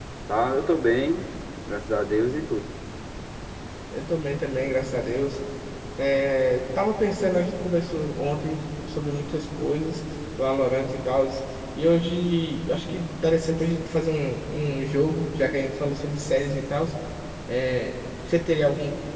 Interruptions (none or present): none